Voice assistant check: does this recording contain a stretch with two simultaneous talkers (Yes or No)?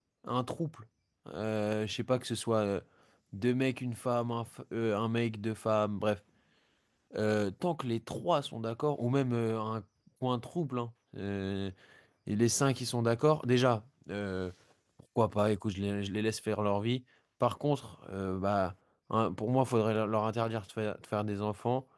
No